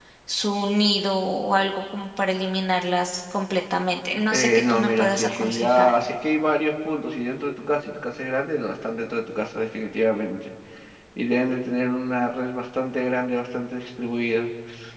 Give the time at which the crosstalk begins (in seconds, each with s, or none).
4.3 s